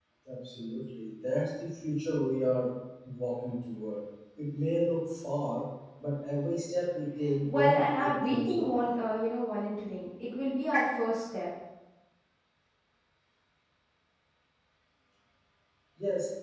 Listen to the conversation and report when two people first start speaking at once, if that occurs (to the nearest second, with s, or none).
7 s